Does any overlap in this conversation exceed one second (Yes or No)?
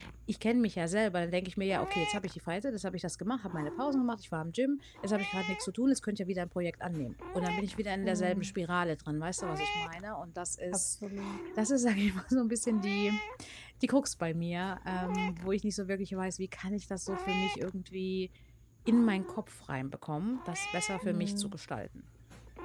No